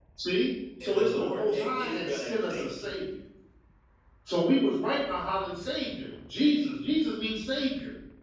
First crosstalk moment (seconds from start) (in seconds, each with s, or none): 0.8 s